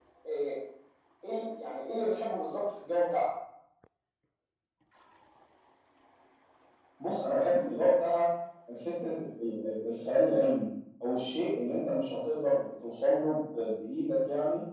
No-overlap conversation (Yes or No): Yes